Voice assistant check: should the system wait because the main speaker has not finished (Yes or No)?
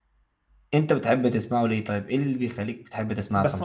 No